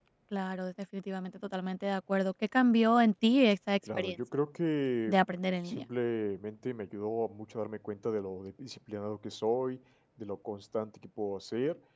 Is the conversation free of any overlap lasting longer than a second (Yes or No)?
Yes